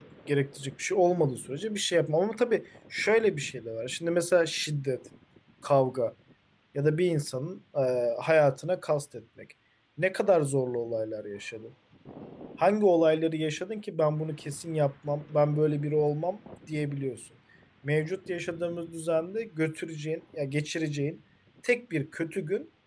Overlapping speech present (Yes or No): No